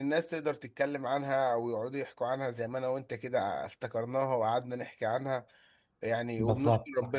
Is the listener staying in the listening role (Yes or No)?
Yes